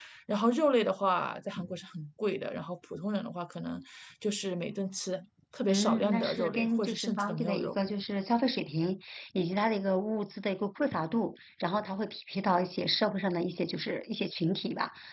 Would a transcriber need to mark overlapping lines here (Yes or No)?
Yes